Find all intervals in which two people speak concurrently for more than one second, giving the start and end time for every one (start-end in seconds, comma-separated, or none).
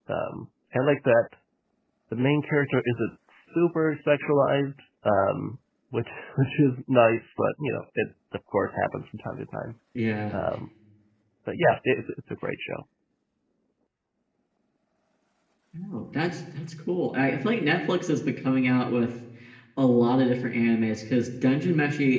none